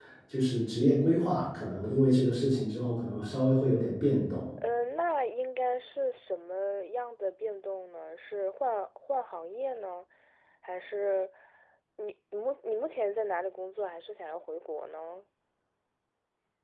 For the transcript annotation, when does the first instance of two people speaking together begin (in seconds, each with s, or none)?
none